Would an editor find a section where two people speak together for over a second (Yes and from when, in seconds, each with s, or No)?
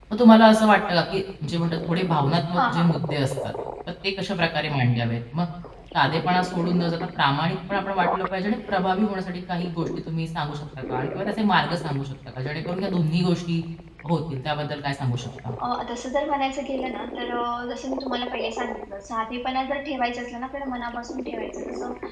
No